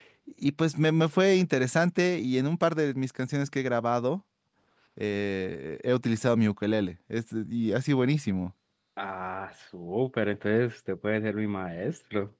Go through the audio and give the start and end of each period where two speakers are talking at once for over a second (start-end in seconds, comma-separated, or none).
none